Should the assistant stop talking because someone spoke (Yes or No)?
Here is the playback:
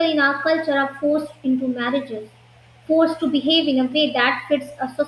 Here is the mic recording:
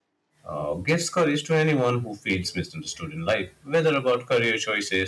Yes